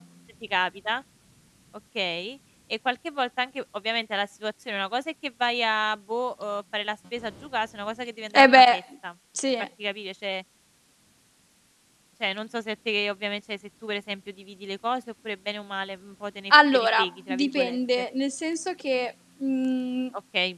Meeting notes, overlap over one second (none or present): present